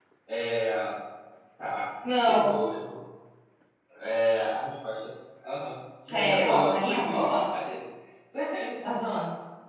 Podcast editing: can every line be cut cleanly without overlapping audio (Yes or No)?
No